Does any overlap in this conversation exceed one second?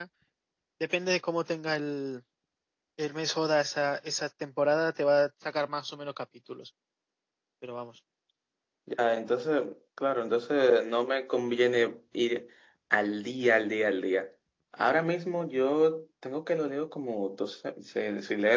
No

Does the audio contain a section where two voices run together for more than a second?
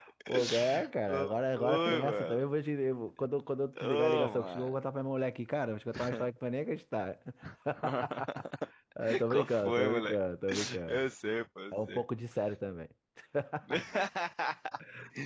Yes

